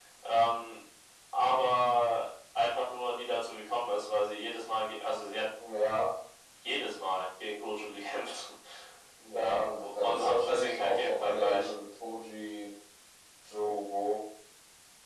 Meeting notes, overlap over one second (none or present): present